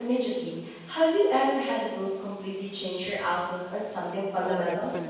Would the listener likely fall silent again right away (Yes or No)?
No